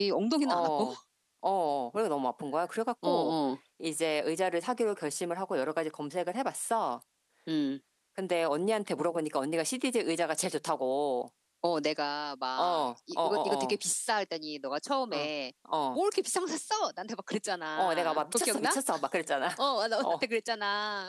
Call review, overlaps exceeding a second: present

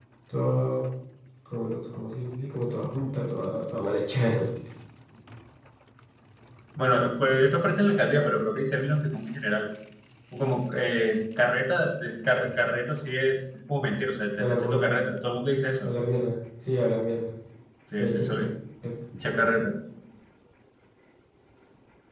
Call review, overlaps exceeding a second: none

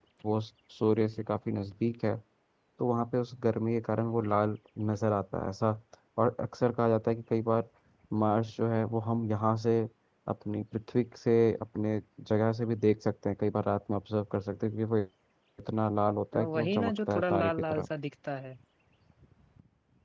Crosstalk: present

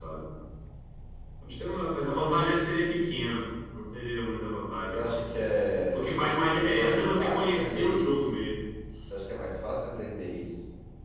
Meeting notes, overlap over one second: present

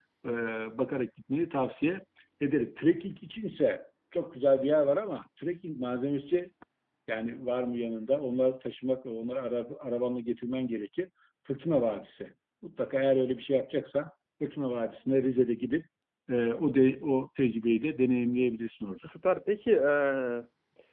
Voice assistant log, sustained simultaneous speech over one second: none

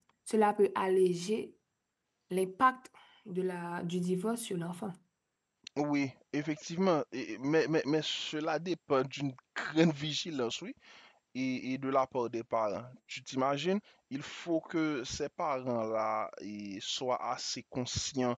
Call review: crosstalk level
none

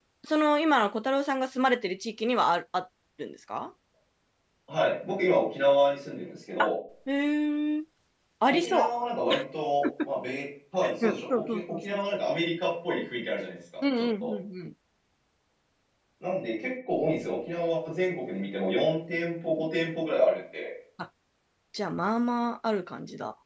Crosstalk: present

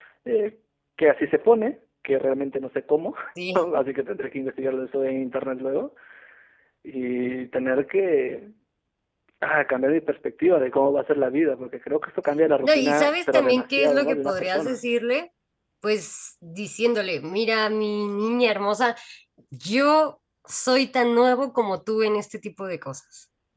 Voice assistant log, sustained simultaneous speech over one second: present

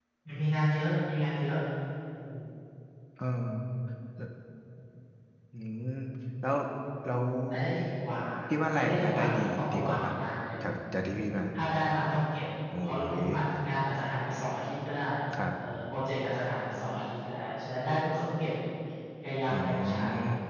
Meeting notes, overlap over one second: present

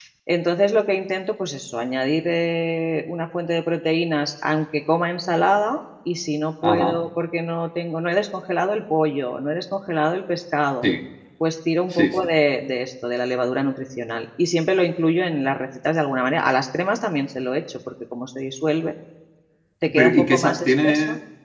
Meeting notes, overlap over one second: present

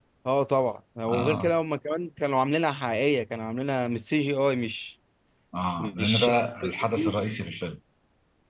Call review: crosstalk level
present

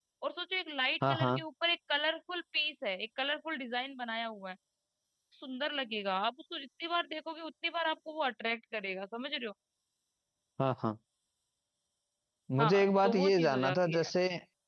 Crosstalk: present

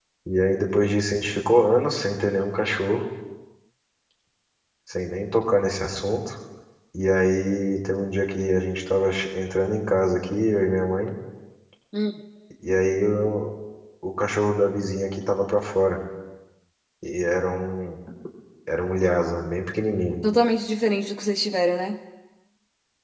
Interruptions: none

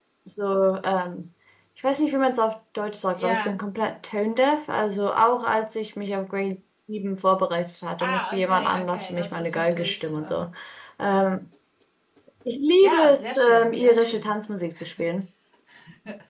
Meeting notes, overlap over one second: present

